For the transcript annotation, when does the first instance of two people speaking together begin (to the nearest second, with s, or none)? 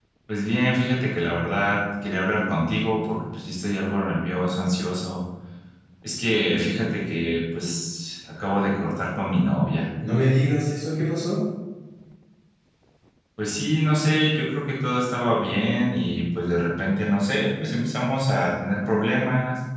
none